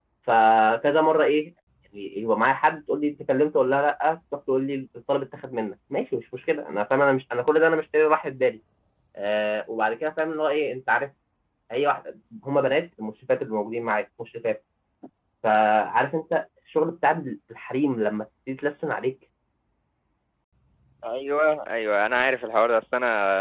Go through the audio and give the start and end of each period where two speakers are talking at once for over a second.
none

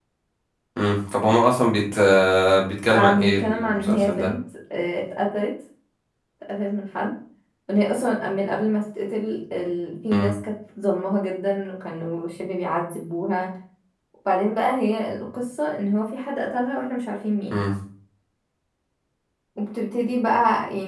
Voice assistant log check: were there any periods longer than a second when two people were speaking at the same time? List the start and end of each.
2.9-4.3

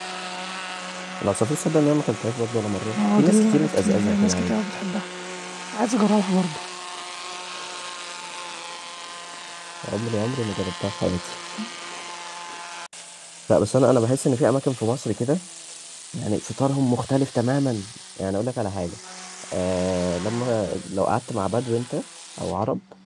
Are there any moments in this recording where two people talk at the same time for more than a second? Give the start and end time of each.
3.0-4.6

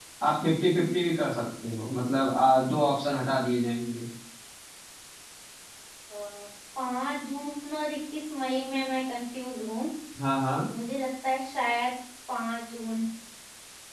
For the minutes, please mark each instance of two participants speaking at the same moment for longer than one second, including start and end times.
none

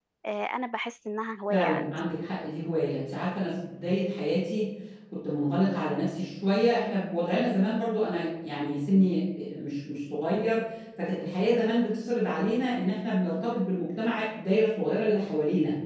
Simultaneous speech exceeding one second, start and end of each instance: none

